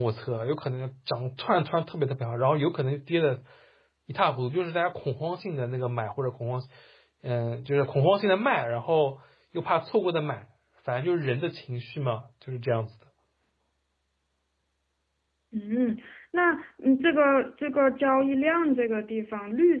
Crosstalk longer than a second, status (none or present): none